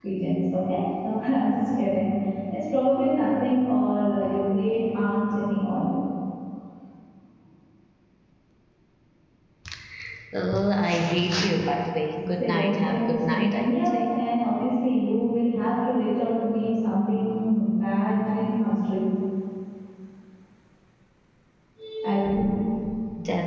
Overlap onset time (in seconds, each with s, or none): 12.4 s